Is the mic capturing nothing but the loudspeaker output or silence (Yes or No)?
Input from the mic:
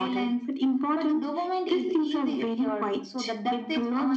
Yes